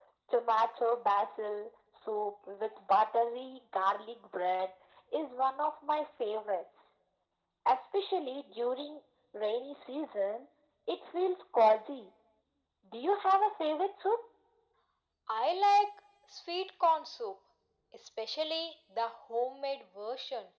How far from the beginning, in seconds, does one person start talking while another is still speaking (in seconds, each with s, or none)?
none